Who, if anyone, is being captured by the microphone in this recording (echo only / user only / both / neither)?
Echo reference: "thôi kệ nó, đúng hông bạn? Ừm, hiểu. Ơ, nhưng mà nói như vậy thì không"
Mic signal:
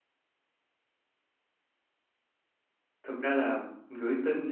user only